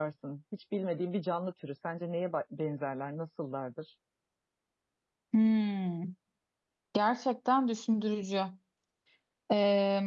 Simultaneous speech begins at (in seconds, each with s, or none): none